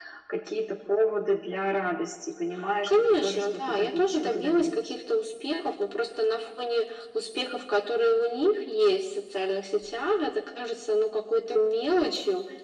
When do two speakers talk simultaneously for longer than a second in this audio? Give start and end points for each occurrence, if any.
2.9-4.9

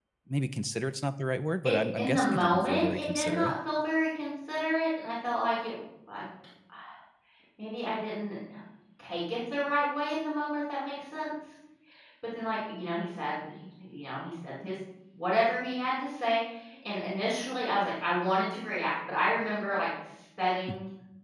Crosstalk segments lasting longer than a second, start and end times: 1.6-3.5

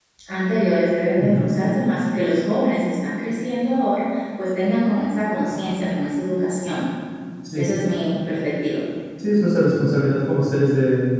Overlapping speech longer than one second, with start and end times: none

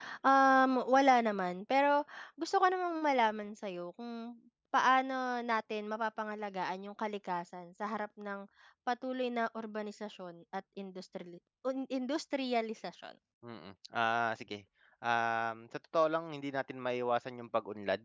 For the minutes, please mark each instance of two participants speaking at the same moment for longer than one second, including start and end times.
none

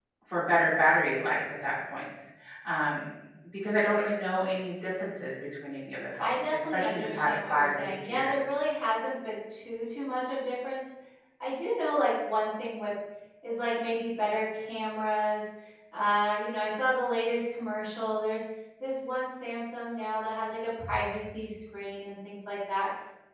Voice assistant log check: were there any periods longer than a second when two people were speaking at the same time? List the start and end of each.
6.2-8.4

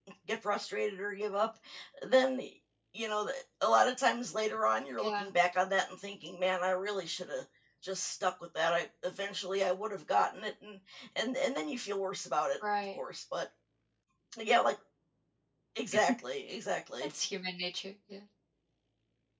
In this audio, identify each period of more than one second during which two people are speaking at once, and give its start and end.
none

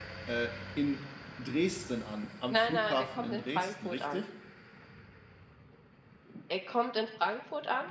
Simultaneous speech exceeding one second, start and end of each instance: 2.5-4.2

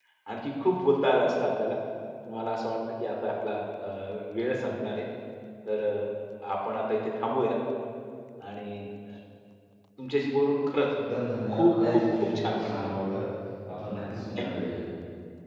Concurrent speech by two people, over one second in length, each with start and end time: 11.5-12.9

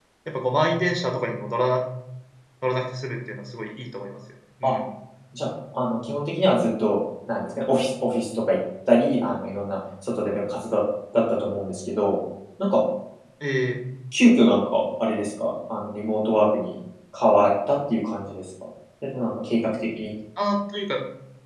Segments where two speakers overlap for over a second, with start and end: none

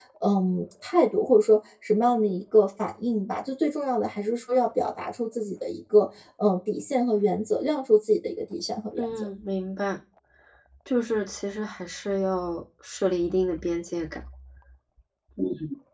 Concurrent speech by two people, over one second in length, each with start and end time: none

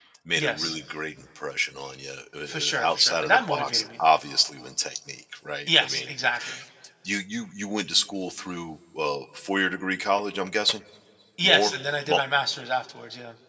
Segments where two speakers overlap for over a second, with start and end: 2.5-3.8

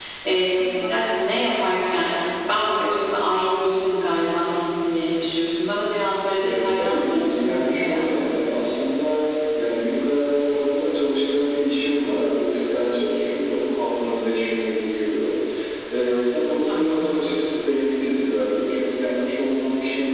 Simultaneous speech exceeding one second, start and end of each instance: 6.4-8.4

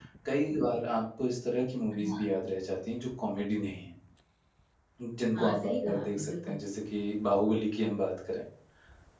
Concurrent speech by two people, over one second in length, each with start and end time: 5.3-6.6

